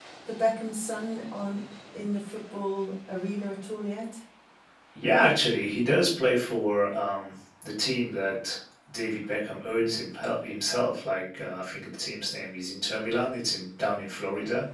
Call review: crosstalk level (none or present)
none